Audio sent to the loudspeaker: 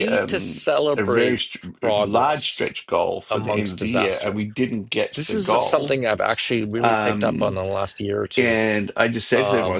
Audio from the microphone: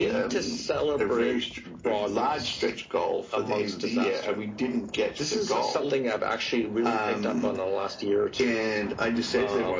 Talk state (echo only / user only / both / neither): echo only